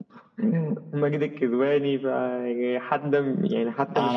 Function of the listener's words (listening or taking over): taking over